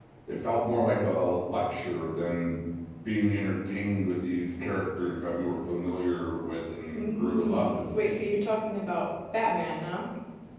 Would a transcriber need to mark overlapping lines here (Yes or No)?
Yes